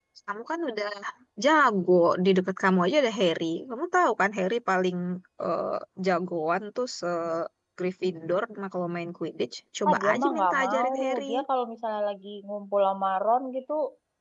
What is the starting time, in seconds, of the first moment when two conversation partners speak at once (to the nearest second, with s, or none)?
10 s